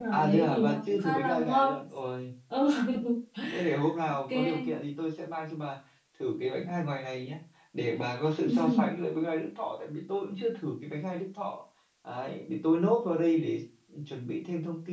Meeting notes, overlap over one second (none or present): present